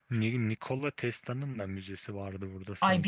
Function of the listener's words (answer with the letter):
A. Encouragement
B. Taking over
B